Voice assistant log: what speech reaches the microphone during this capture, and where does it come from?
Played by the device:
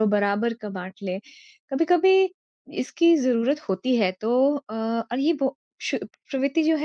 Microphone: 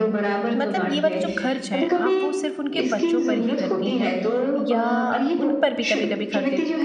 both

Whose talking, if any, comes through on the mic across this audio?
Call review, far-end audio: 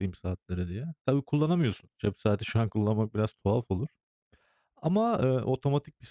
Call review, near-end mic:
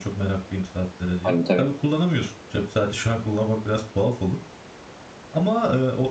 both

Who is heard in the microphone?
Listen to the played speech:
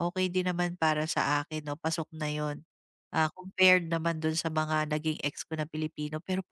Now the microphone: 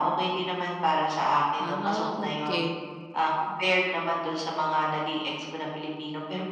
both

